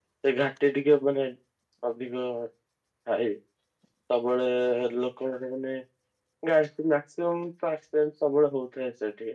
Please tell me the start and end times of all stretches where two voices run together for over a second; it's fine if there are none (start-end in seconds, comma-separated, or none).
none